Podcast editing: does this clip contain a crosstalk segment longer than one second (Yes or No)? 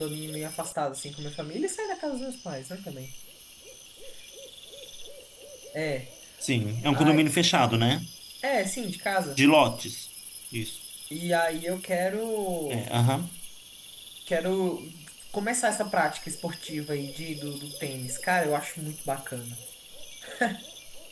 No